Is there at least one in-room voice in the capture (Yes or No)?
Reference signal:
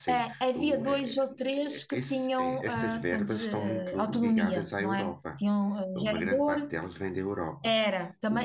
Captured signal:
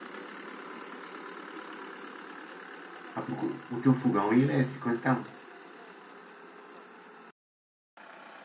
Yes